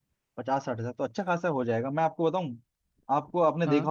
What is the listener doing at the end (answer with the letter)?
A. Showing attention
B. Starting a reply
A